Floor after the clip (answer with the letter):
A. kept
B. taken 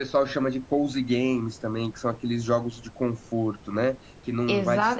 B